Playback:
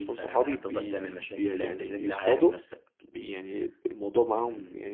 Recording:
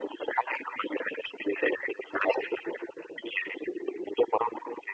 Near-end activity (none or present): none